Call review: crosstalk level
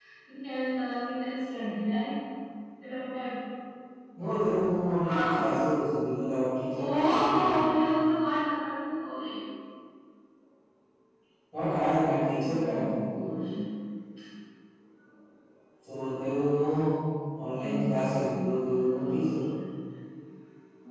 present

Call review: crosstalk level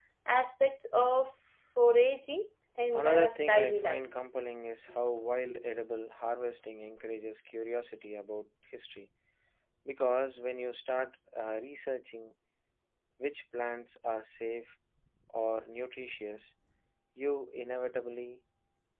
present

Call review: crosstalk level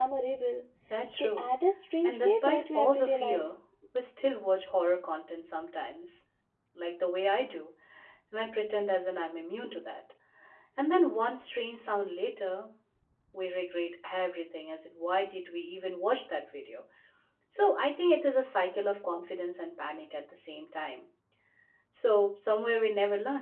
present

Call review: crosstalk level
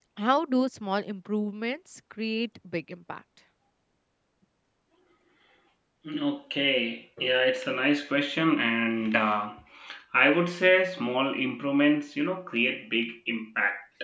none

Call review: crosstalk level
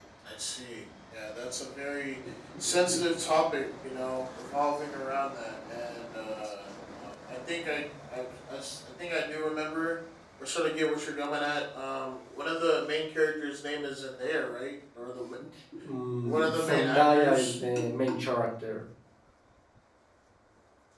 present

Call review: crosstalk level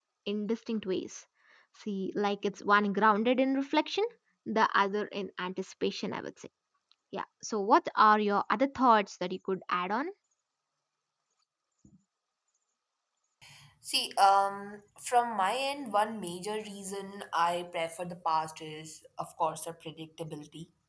none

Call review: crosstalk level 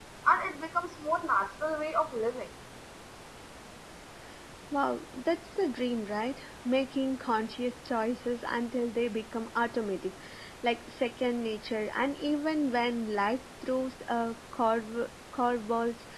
none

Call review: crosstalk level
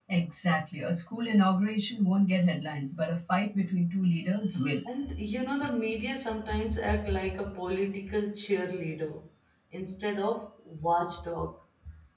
none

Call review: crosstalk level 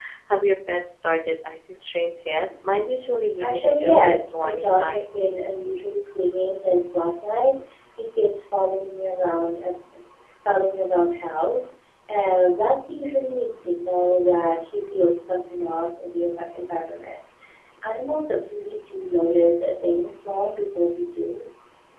present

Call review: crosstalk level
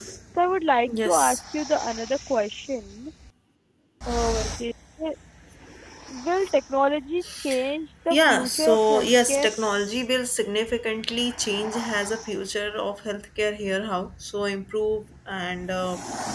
present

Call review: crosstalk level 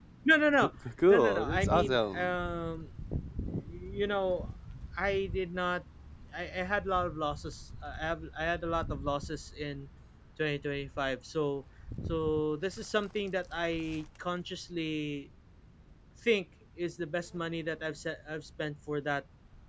present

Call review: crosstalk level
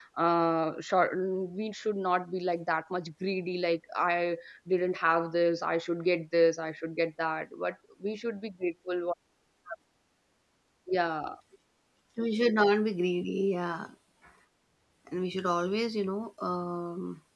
none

